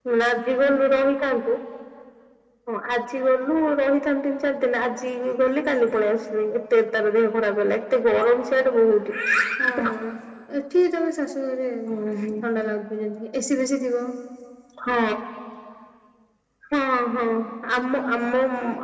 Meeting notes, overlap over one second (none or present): none